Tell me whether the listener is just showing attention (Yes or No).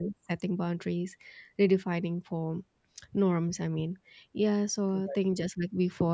Yes